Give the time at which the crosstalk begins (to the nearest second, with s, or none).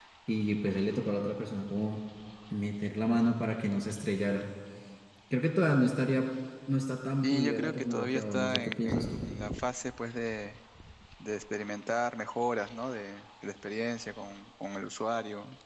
7 s